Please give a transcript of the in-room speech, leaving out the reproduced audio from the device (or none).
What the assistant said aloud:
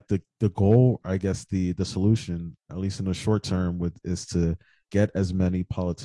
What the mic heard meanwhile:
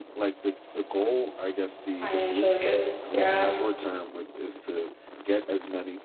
Financial interests. Yeah.